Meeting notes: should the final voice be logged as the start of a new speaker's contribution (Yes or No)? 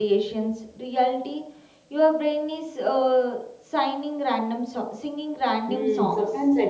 Yes